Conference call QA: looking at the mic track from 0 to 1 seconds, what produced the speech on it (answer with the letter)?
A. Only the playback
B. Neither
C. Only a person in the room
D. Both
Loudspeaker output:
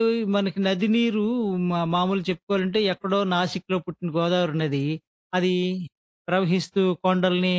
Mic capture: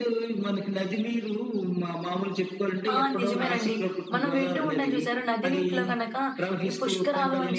A